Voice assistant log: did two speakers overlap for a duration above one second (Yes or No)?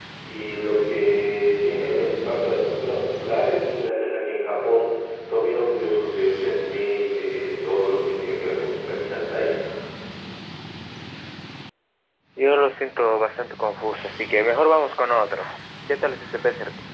No